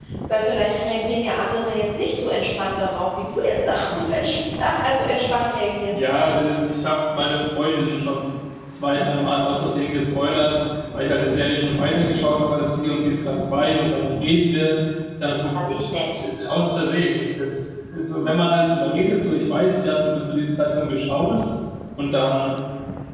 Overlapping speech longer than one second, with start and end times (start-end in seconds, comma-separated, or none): none